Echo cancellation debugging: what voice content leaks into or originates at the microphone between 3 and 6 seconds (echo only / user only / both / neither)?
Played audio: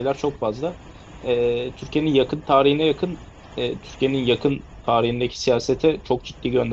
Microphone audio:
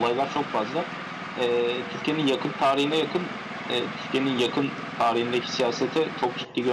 echo only